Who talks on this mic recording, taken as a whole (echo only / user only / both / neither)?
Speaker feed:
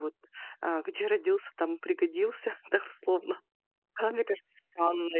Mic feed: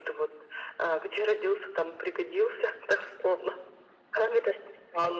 echo only